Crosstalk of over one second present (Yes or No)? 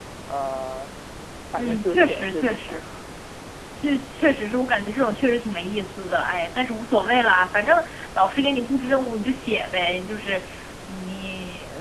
Yes